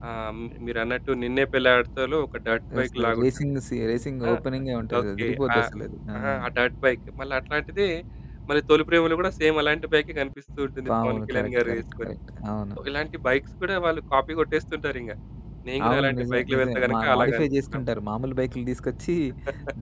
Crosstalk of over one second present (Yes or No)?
Yes